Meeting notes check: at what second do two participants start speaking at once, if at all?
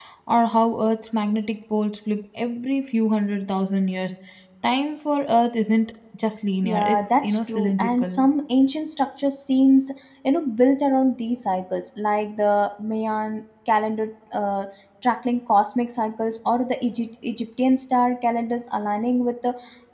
6.6 s

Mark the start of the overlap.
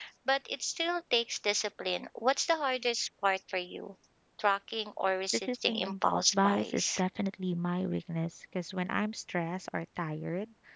5.5 s

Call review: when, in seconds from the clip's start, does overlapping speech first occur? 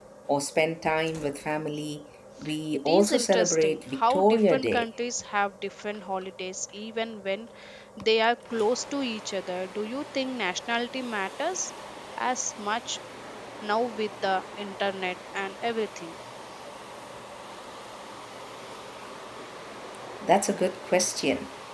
2.9 s

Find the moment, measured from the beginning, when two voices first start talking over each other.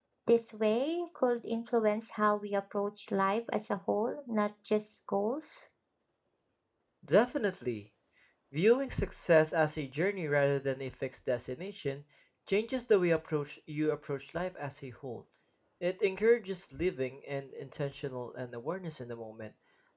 none

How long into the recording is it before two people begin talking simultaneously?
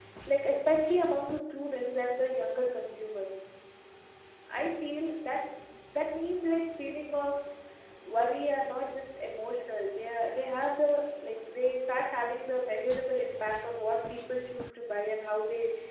none

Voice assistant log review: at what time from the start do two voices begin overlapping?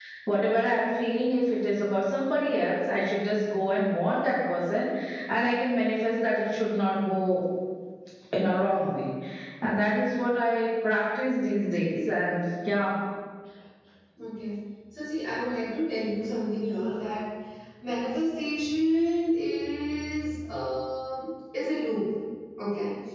none

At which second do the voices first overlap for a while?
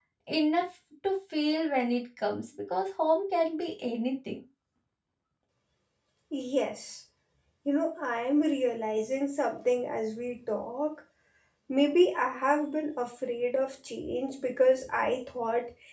none

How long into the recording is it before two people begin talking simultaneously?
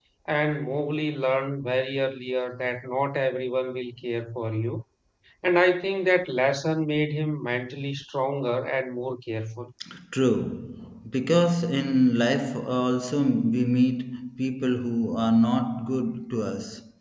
none

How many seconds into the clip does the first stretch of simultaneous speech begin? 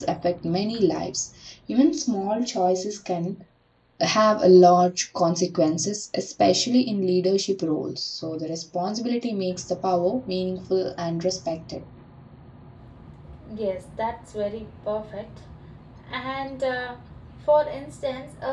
none

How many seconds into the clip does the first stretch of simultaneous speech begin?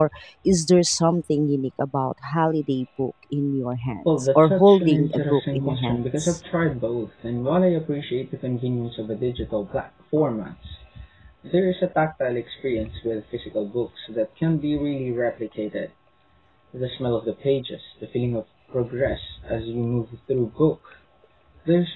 4.0 s

